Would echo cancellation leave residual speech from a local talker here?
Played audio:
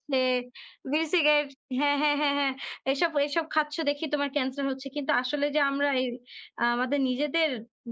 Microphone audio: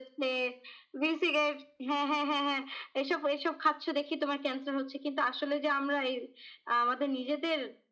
No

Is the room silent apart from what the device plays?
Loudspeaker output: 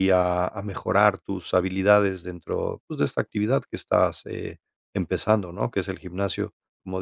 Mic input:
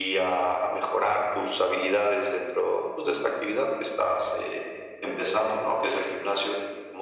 Yes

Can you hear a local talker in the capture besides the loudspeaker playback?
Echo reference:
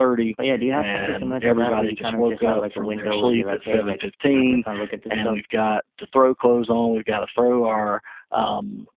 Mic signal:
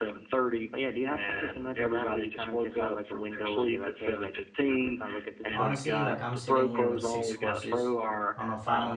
Yes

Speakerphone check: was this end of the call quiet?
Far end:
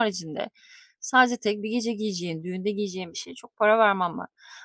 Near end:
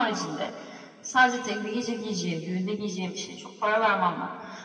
Yes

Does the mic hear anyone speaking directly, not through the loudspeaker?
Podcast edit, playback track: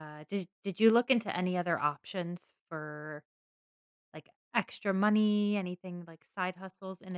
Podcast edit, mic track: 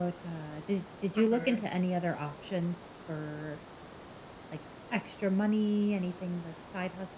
Yes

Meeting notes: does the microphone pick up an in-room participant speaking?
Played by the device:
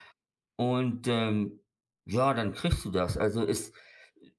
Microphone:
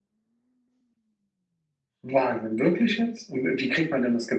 Yes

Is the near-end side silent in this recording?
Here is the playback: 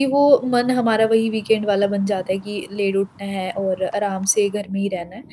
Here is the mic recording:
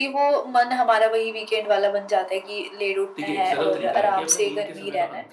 No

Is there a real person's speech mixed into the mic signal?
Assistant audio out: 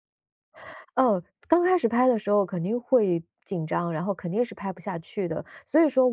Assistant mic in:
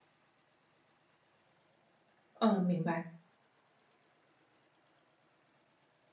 Yes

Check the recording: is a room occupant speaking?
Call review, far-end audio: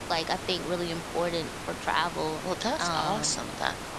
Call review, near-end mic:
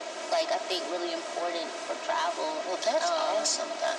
No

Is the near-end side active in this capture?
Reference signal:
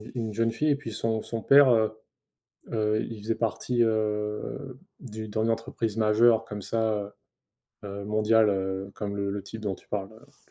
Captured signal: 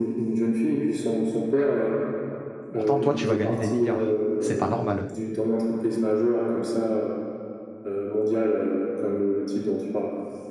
Yes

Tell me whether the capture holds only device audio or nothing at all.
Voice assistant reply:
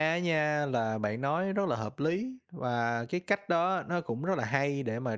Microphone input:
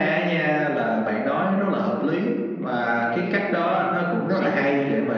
No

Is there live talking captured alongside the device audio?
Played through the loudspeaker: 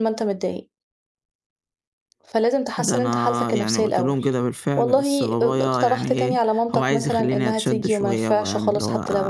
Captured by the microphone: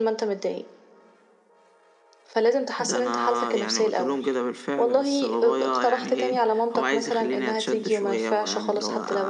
No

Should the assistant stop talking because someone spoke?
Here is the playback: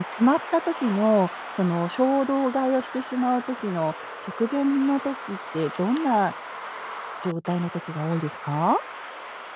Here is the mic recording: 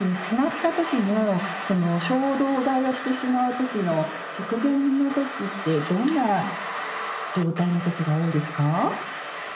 No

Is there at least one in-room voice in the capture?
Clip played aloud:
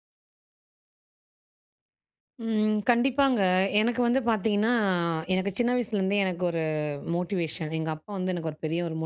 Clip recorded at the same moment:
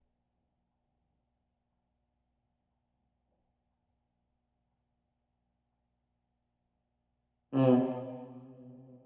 Yes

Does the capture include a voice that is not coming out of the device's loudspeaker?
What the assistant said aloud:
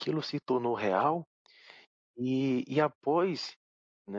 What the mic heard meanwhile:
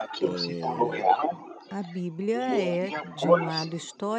Yes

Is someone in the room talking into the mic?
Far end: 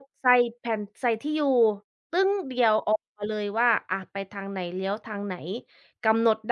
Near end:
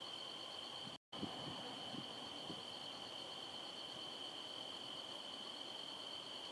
No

